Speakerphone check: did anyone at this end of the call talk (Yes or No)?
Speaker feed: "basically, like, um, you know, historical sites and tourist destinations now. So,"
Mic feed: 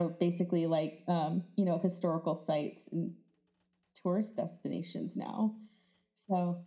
No